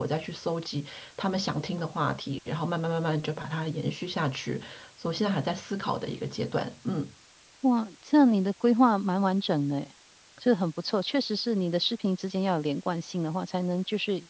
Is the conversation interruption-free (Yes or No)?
Yes